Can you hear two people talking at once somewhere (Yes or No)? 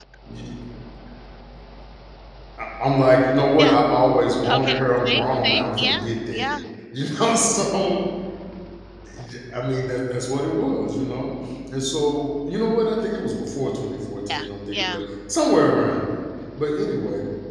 Yes